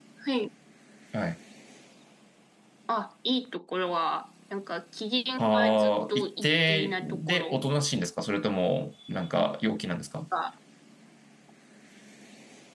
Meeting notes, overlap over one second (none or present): present